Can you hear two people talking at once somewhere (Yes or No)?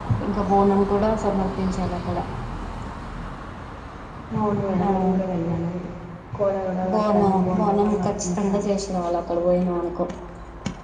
Yes